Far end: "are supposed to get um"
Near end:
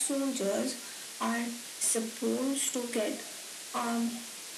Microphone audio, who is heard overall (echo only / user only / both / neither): echo only